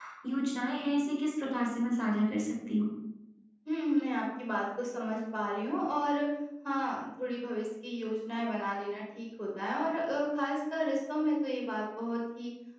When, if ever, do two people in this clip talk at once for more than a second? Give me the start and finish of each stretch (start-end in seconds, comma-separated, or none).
none